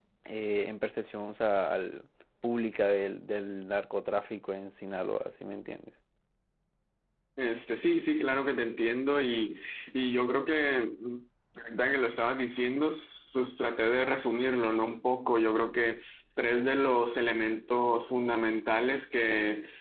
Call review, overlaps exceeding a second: none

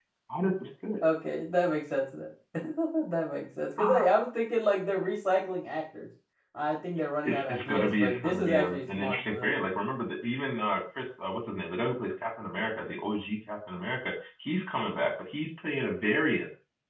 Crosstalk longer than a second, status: present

